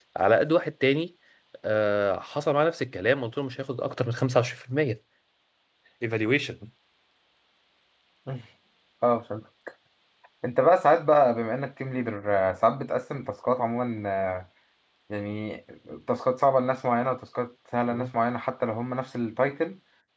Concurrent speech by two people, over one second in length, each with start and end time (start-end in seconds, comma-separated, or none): none